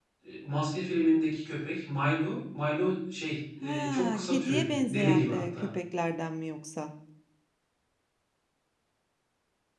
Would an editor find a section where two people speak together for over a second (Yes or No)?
Yes